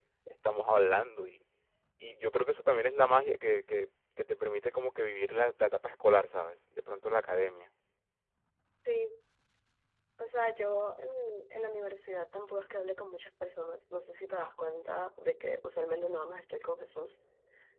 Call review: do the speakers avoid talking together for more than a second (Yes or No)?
Yes